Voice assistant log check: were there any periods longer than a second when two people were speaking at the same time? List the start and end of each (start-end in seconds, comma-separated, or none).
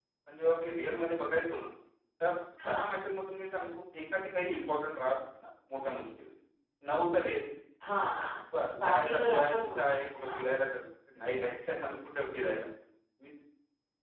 8.8-10.4